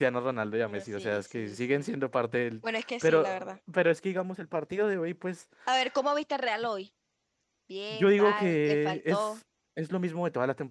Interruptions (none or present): present